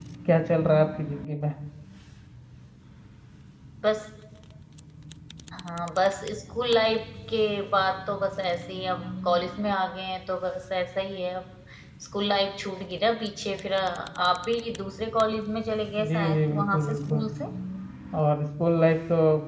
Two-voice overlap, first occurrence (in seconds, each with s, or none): 16.0 s